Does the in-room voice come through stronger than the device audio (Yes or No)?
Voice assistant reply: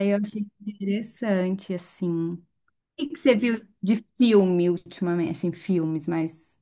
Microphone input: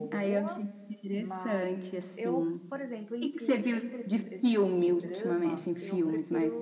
No